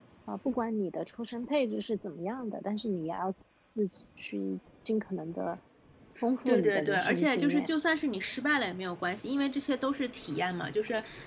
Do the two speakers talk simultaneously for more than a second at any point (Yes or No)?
Yes